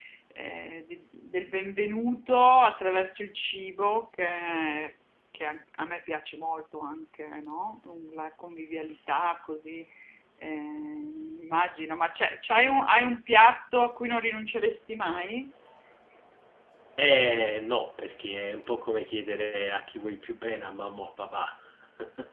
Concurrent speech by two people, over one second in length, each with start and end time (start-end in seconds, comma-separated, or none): none